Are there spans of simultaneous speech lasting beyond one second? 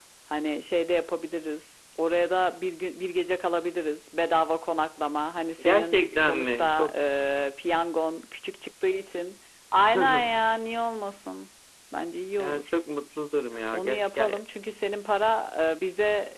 Yes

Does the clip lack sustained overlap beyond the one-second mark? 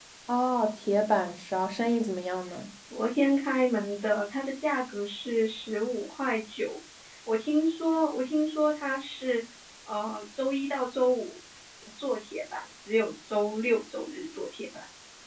Yes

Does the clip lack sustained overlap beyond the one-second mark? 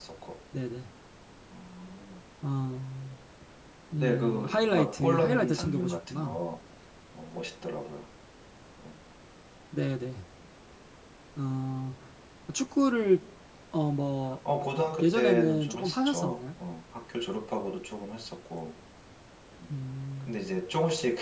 No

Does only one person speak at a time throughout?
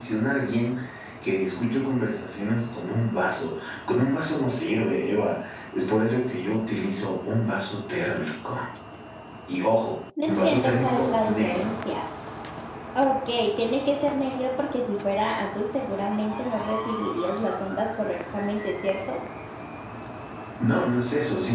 No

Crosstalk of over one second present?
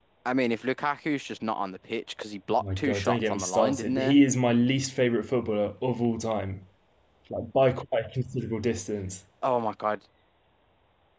Yes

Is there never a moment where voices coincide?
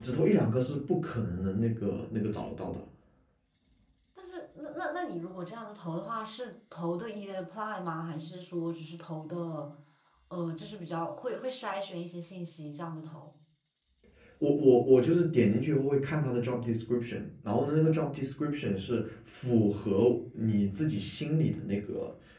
Yes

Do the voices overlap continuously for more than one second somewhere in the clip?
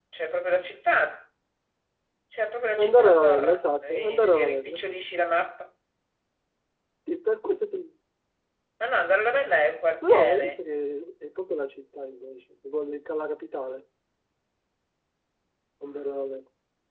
Yes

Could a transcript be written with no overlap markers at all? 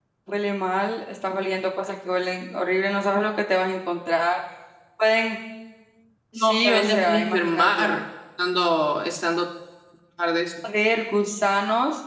No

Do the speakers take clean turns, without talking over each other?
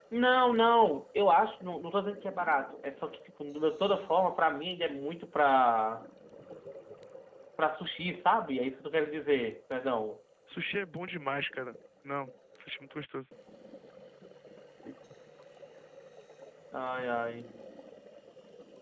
Yes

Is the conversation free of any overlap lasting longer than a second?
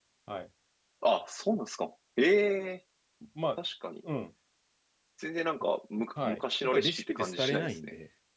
No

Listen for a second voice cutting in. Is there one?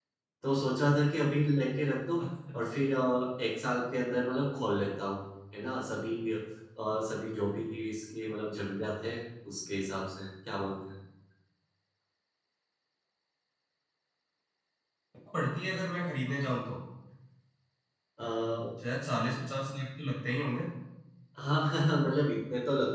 No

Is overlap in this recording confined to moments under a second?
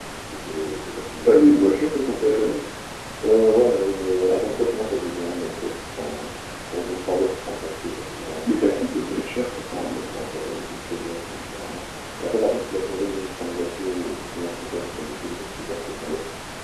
Yes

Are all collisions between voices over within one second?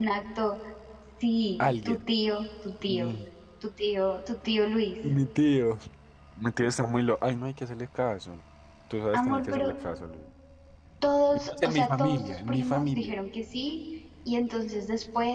No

